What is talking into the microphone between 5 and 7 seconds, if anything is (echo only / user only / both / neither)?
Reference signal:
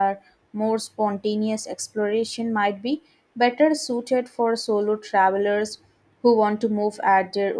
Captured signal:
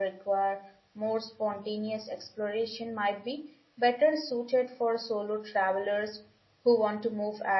echo only